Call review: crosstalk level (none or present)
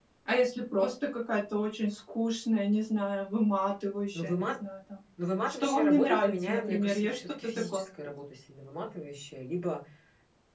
present